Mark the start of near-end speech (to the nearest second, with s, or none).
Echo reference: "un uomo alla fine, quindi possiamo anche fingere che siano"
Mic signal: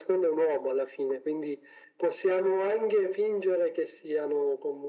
none